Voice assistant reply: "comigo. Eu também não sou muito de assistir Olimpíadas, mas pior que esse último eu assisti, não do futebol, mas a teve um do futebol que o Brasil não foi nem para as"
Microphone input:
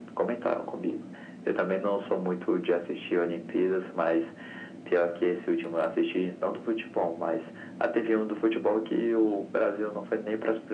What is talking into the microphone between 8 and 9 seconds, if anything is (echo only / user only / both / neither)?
echo only